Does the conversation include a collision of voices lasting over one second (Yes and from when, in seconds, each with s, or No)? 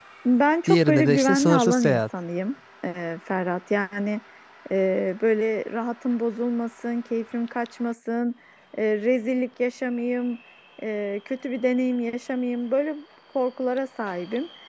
Yes, from 0.7 s